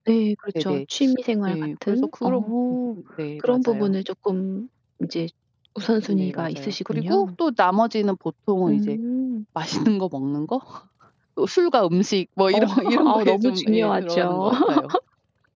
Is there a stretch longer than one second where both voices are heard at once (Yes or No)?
Yes